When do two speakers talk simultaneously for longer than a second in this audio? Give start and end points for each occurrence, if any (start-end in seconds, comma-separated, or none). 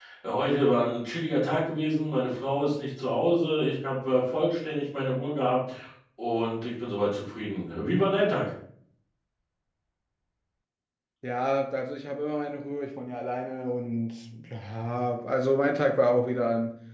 none